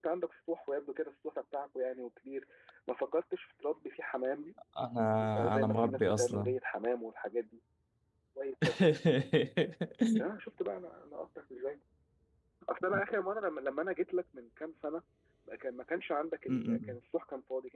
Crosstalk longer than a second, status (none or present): present